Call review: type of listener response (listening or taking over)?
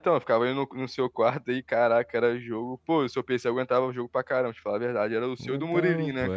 taking over